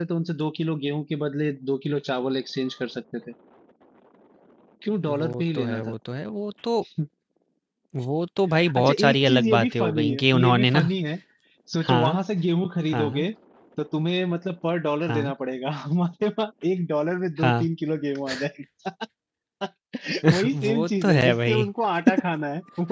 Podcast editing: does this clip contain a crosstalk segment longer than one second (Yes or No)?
Yes